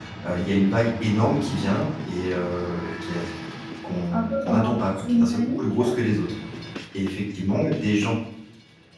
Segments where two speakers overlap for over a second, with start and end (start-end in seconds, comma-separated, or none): 4.1-5.9